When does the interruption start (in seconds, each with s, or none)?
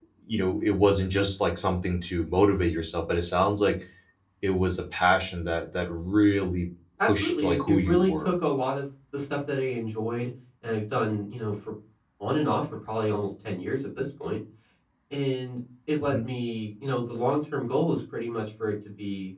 7.0 s